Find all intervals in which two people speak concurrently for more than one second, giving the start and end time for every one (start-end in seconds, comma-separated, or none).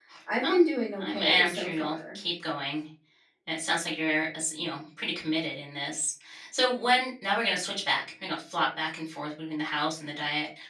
1.0-2.2